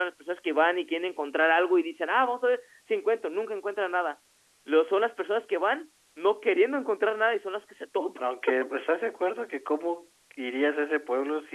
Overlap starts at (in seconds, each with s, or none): none